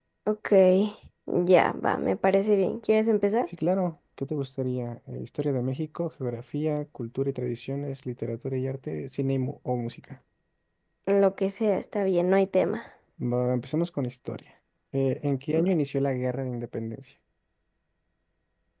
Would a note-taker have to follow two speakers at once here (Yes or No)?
No